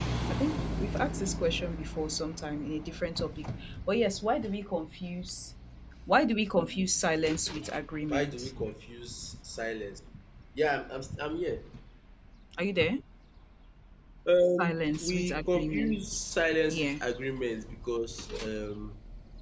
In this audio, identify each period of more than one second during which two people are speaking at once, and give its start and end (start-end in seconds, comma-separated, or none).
14.6-16.0